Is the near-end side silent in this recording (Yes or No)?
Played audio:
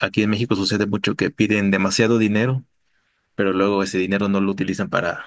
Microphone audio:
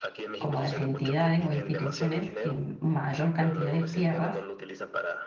No